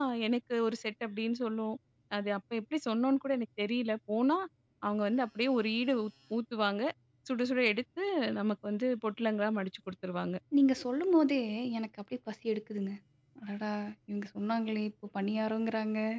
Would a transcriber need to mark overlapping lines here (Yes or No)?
No